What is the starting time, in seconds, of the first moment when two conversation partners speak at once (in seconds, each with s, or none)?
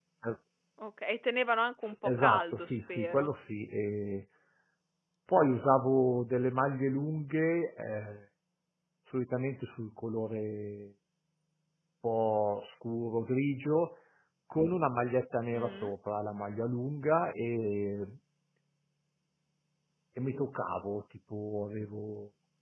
1.8 s